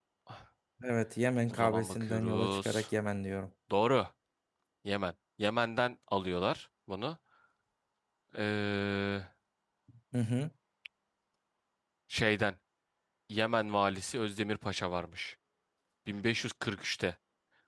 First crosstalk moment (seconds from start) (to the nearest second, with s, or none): 1 s